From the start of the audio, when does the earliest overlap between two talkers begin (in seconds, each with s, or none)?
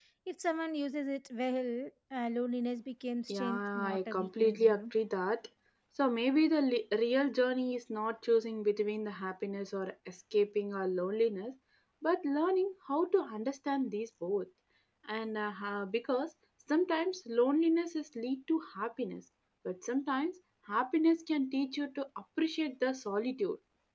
3.3 s